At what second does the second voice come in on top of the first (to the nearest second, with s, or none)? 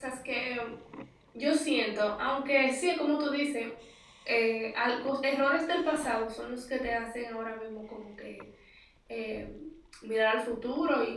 none